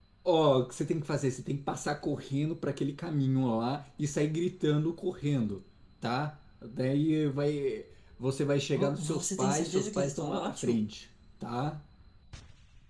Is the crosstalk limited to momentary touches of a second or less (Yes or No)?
No